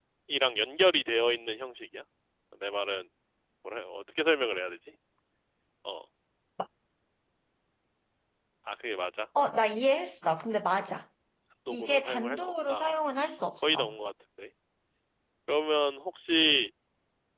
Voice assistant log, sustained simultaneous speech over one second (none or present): present